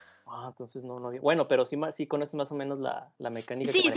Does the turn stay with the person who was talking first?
No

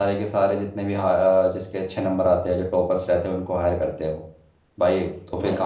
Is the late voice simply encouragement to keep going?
Yes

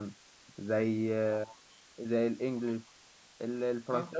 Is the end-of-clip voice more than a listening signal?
No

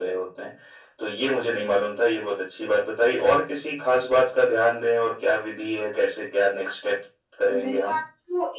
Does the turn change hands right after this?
Yes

